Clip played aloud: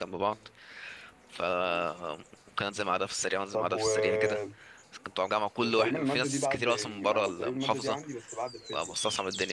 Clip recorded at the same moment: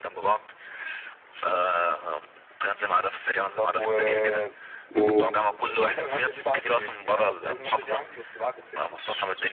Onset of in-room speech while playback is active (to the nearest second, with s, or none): 5 s